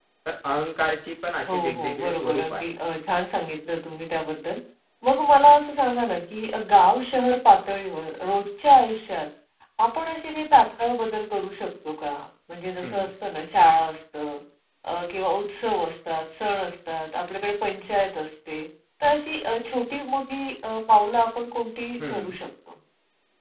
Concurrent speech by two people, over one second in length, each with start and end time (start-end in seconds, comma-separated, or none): 1.5-2.7